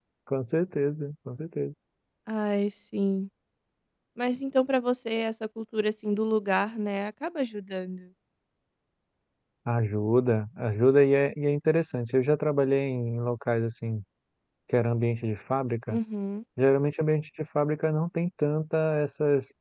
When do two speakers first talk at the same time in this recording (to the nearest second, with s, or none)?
none